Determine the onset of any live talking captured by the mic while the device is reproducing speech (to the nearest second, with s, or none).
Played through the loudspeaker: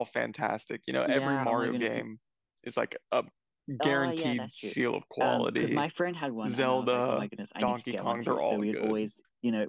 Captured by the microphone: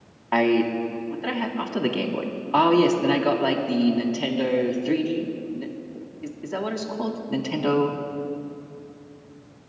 0 s